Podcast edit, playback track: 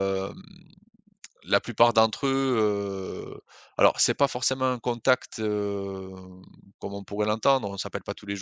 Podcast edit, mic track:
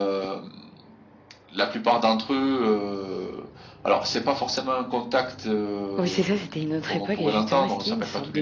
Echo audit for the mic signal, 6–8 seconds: both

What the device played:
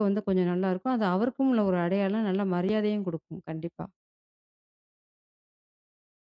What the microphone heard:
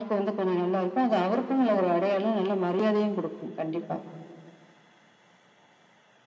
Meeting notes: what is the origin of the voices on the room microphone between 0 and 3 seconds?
echo only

